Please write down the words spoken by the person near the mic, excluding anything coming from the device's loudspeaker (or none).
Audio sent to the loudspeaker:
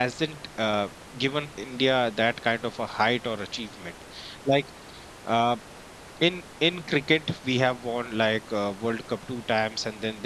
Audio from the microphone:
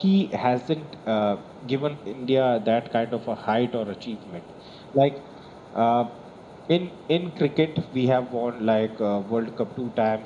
none